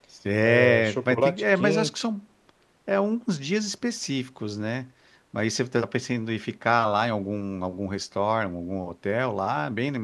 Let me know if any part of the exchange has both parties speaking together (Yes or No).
Yes